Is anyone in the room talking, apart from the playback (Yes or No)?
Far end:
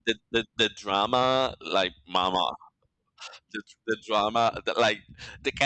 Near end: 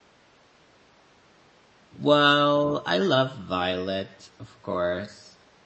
Yes